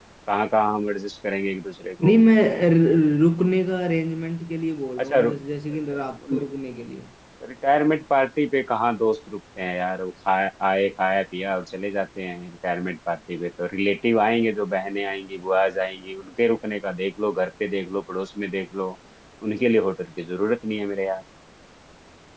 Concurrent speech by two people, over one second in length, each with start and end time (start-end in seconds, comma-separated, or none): none